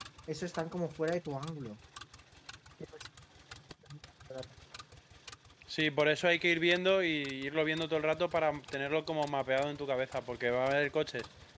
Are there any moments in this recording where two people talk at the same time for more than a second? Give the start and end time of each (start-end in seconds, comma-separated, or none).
none